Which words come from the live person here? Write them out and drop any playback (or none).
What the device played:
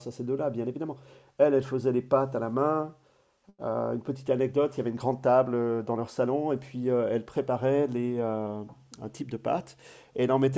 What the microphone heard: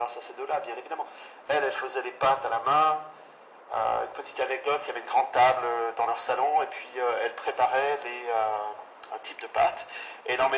none